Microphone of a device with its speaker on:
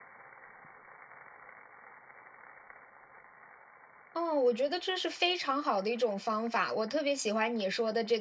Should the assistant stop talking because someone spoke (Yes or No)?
Yes